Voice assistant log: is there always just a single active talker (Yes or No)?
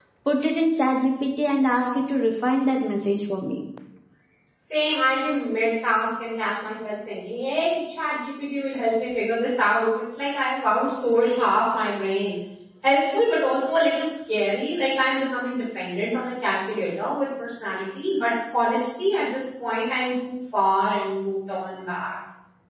Yes